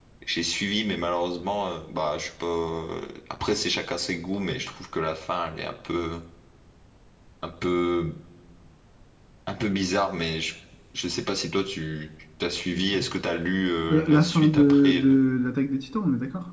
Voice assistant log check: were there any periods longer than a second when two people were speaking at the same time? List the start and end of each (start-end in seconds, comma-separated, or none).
13.9-15.1